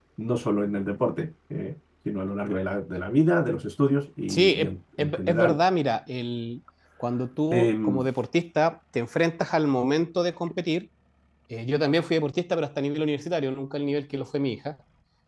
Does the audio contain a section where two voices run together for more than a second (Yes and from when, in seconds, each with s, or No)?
Yes, from 4.3 s